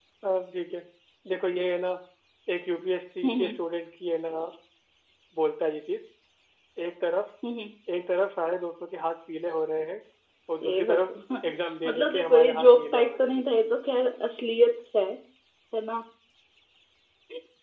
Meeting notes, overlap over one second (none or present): present